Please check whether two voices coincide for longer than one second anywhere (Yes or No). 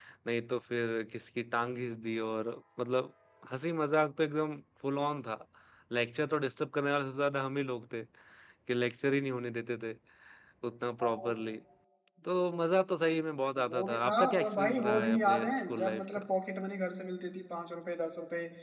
Yes